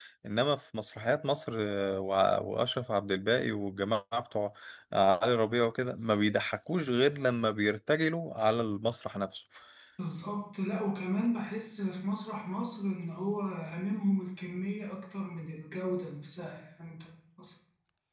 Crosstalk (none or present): none